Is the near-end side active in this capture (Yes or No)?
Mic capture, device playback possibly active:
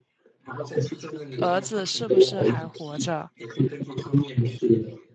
Yes